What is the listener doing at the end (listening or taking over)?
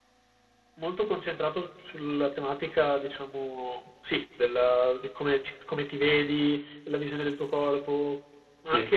listening